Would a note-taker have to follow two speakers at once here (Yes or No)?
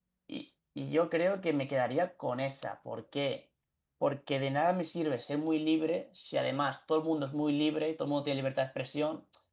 No